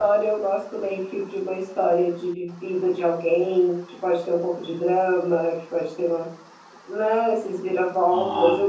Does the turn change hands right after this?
No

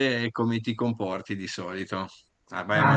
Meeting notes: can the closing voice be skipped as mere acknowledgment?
Yes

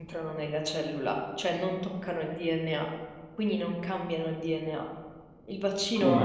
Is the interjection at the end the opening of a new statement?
Yes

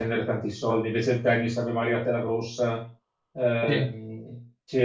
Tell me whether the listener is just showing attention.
Yes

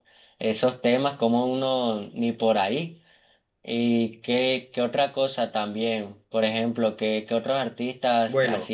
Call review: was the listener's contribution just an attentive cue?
No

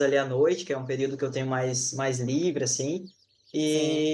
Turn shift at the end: No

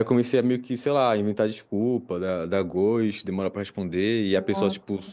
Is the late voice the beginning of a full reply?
No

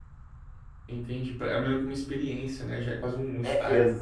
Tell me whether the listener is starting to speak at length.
Yes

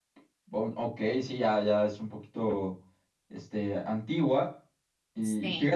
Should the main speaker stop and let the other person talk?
No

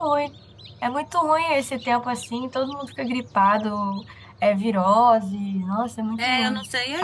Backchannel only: No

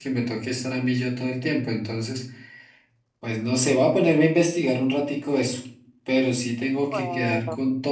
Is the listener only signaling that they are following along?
Yes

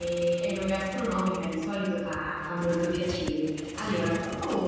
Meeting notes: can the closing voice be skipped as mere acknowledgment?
Yes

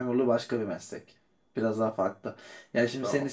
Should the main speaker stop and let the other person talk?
No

